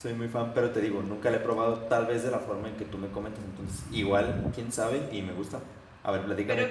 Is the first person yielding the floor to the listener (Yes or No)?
Yes